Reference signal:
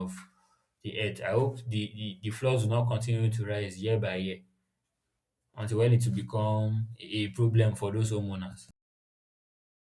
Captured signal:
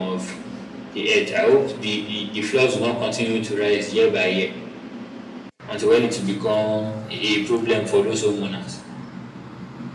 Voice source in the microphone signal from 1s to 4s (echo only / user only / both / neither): echo only